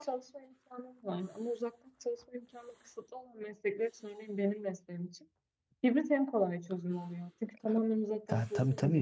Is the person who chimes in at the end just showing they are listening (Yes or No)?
No